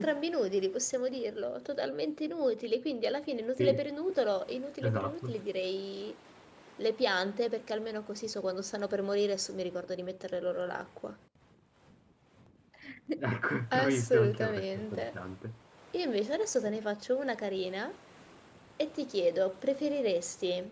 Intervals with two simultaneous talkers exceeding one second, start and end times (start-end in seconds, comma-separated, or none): 13.7-15.1